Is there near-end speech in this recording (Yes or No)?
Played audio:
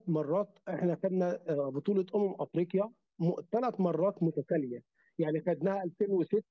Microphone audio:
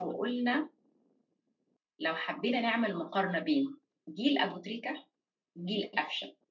Yes